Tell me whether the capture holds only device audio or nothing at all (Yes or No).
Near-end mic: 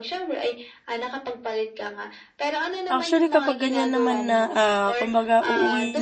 No